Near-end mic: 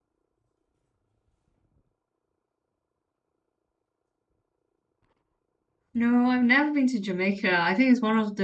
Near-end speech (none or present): present